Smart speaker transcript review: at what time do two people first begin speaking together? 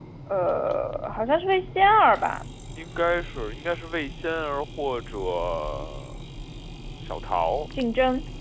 none

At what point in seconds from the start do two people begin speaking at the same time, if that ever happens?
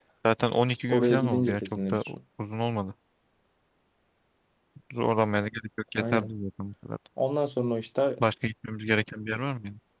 0.9 s

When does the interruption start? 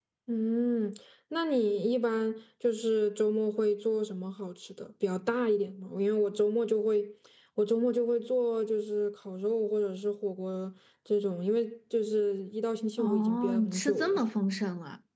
13.0 s

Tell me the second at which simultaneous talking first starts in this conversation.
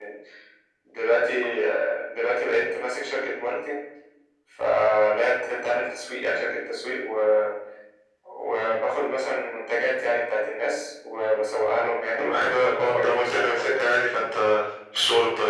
12.2 s

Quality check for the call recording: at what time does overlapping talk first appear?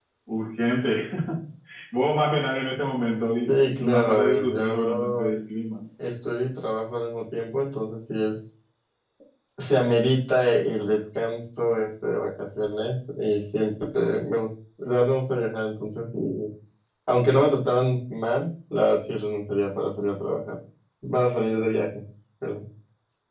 3.5 s

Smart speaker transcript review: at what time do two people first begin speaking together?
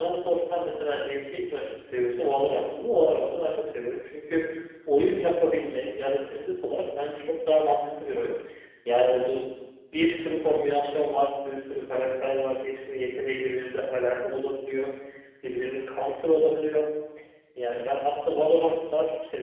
none

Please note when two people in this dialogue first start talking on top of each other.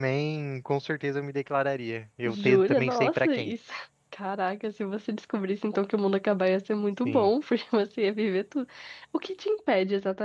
2.3 s

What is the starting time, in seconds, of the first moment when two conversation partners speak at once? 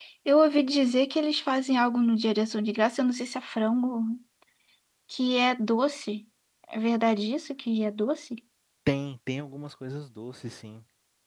none

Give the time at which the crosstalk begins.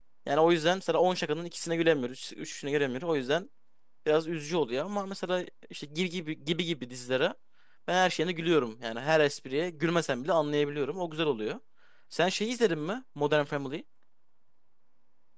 none

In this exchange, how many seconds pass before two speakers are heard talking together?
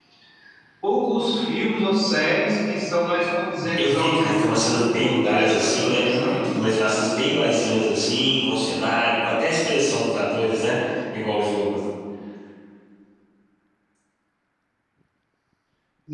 3.6 s

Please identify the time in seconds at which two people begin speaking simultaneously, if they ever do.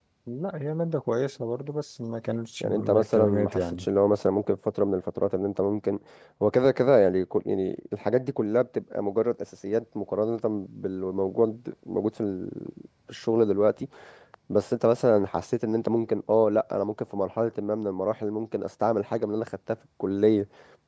2.6 s

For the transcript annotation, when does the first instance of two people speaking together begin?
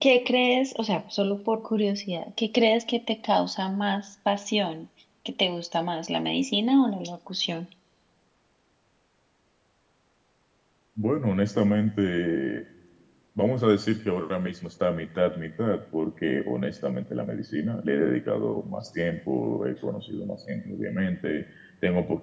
none

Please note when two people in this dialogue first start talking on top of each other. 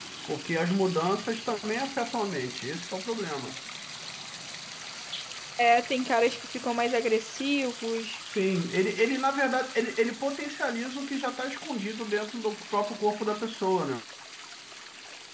none

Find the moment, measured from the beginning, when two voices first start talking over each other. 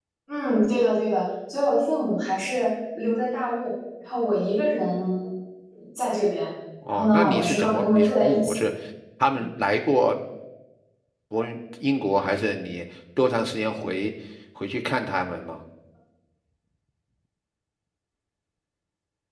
6.9 s

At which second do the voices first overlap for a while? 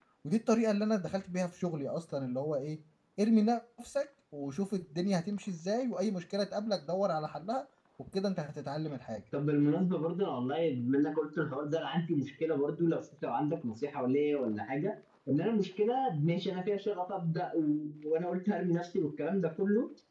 none

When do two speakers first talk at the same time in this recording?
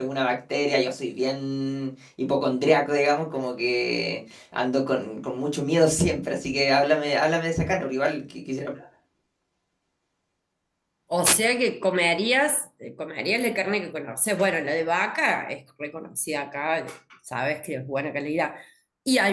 none

